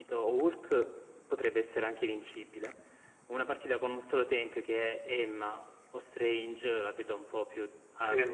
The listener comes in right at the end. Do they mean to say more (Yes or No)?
Yes